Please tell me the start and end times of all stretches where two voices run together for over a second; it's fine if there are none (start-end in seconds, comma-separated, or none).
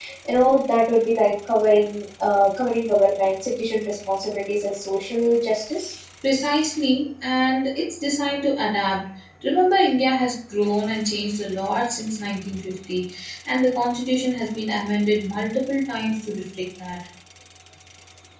none